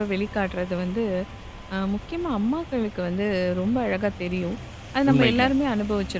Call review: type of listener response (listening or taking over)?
listening